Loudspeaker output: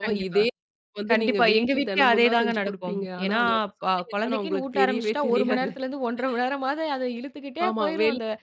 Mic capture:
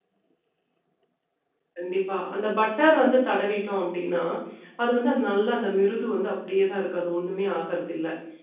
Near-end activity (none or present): present